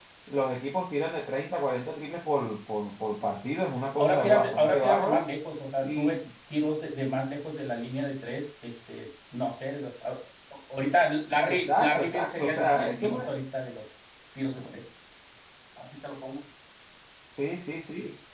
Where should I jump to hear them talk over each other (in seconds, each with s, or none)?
4.0 s